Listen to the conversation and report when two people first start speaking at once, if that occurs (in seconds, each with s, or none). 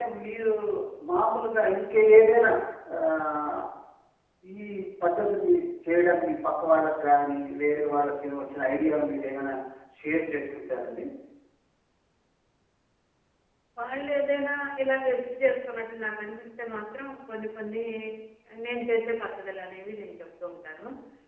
none